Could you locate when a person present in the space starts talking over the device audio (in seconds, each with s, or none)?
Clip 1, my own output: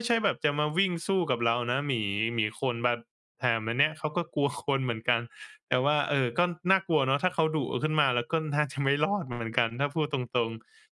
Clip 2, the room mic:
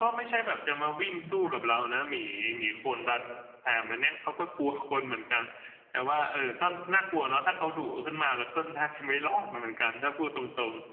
1.2 s